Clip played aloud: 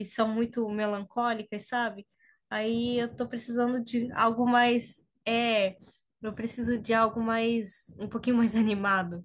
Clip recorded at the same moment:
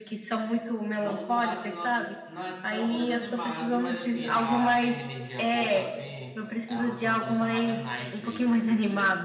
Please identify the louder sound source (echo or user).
echo